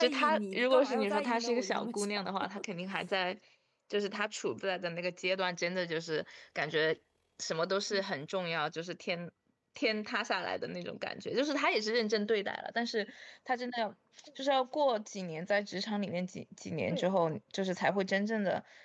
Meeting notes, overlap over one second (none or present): present